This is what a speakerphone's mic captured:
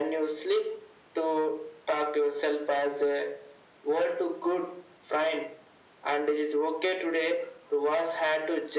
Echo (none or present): present